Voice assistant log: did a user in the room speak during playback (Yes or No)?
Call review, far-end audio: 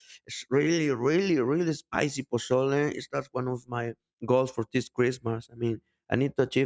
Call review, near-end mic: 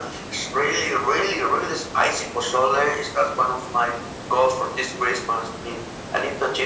No